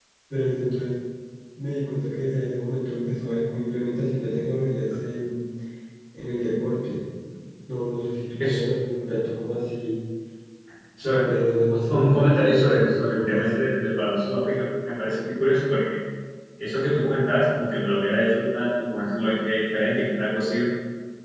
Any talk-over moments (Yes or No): Yes